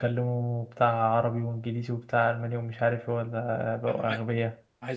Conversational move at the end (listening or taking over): taking over